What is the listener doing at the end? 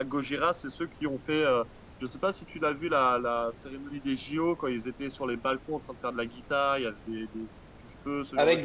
taking over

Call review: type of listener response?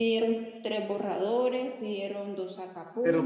taking over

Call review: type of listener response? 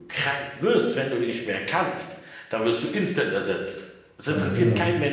listening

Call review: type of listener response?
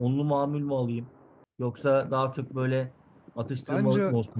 listening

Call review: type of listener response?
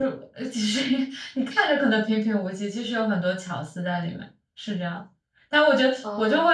listening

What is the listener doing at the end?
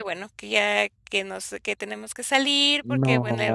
listening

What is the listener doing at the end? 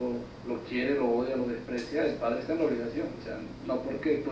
listening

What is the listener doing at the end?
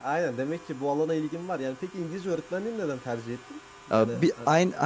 taking over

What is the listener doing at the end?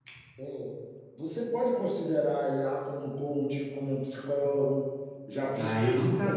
taking over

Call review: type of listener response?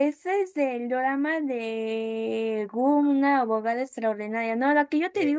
listening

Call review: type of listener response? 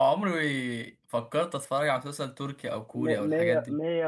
taking over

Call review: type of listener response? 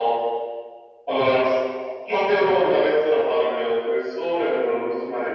listening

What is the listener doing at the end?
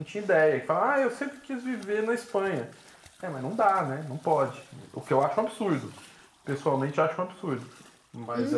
taking over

